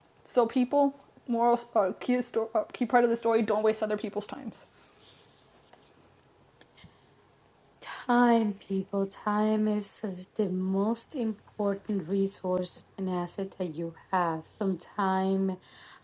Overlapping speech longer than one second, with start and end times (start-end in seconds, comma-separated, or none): none